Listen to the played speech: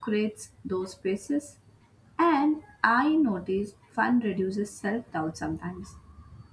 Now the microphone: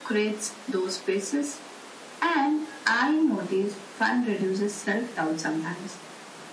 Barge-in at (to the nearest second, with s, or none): none